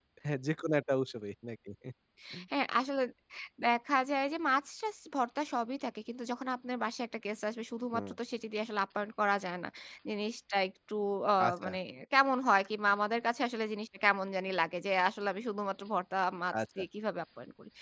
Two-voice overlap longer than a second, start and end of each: none

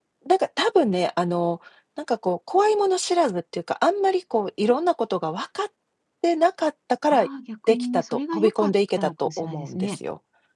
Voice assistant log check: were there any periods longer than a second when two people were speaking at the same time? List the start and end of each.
7.7-10.0

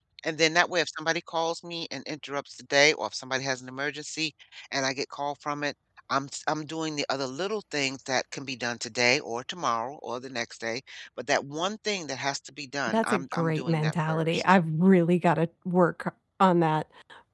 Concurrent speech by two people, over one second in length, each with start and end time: 12.9-14.4

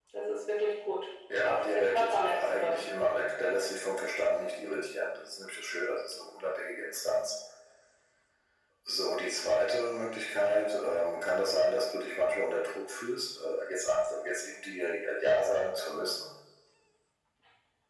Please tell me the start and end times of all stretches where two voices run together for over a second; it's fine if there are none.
1.4-2.9

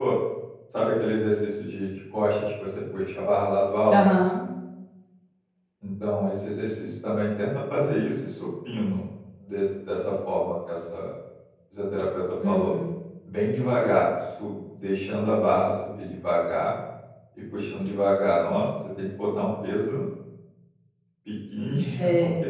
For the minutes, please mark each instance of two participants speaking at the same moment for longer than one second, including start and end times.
none

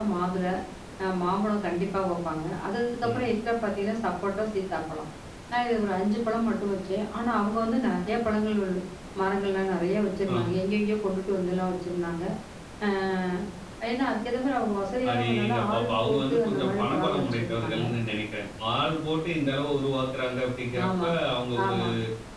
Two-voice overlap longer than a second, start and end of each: 15.1-17.8

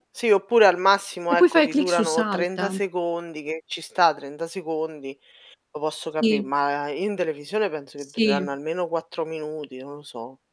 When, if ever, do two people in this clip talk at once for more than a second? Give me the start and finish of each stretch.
1.3-2.8

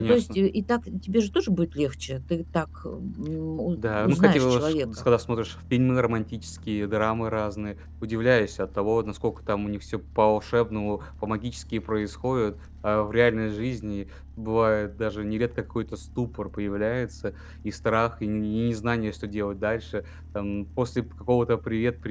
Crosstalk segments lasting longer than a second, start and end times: 3.8-5.0

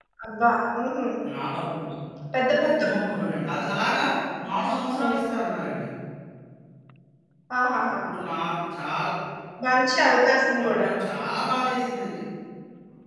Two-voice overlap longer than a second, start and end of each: none

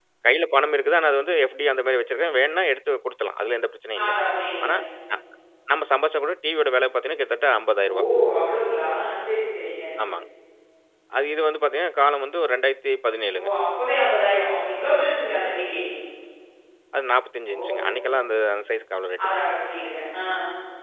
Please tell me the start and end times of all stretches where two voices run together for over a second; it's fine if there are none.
none

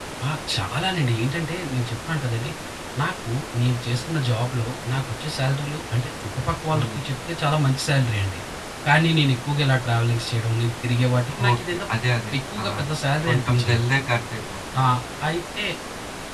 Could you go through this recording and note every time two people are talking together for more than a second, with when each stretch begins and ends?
none

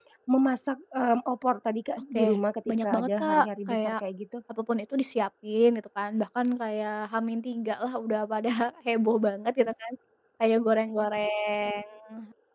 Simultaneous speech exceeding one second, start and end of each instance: 2.7-3.9

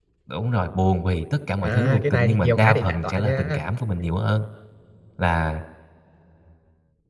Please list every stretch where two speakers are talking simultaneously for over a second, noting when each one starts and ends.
1.6-3.6

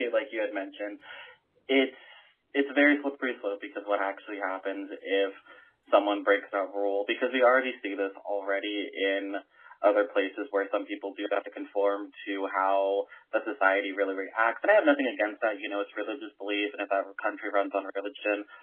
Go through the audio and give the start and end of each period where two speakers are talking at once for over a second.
none

